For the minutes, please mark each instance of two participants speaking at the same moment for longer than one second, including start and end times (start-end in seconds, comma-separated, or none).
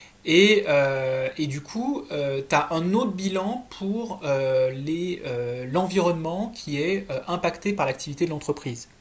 none